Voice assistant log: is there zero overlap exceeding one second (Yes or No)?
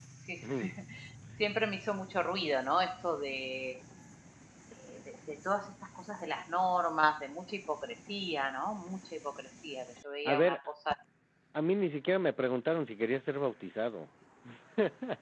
Yes